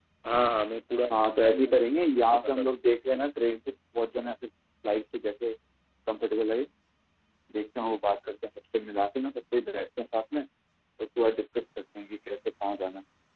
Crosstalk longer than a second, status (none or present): present